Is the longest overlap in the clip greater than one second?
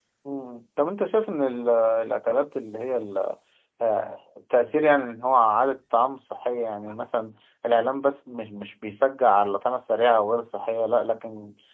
No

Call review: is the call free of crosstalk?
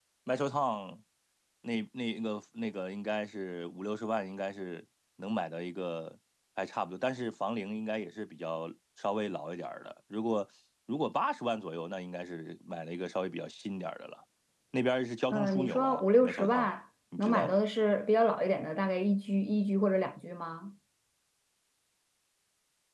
No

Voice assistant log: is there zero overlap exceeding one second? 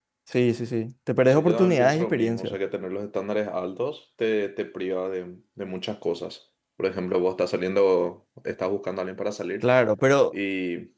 No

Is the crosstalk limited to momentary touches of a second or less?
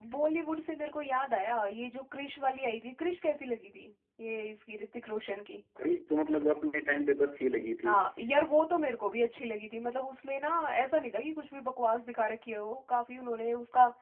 Yes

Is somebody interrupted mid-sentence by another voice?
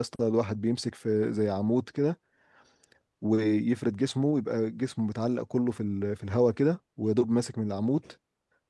No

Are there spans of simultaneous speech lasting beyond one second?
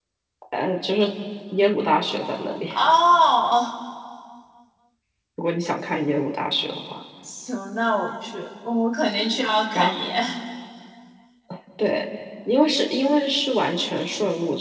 No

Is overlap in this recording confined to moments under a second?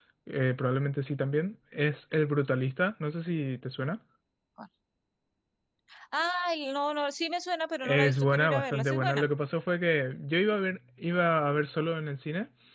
No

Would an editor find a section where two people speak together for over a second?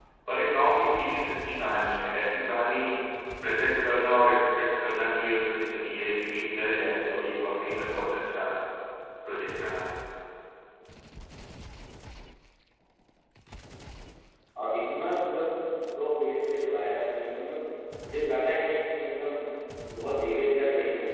No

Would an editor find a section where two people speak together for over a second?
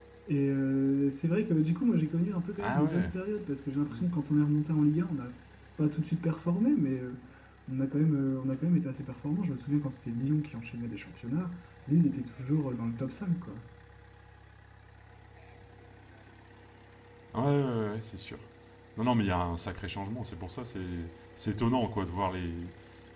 No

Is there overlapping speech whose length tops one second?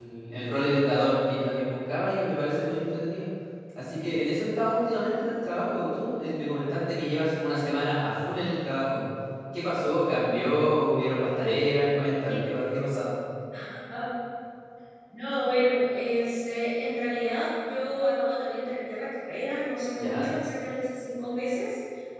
No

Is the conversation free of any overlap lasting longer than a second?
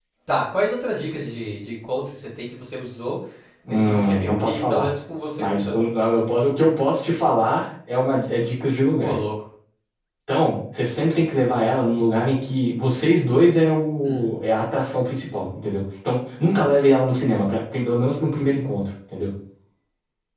No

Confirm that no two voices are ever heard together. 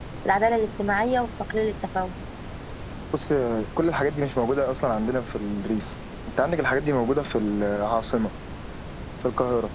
Yes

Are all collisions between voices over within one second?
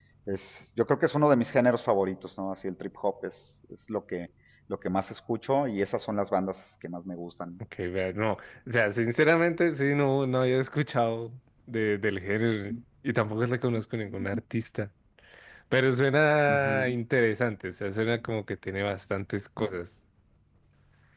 Yes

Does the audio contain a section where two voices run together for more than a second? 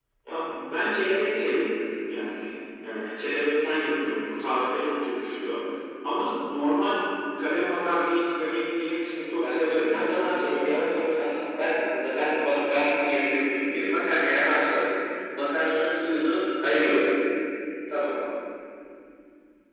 Yes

